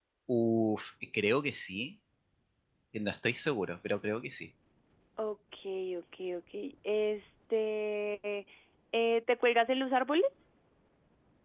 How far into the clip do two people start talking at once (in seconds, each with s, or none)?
none